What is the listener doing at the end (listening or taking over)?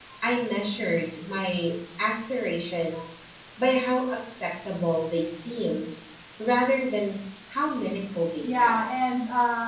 taking over